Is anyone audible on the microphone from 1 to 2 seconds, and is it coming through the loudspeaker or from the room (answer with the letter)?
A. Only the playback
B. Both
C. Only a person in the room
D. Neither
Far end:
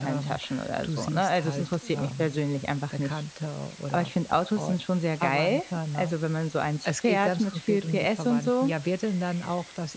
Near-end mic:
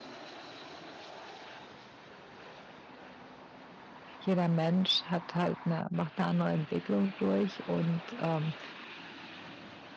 D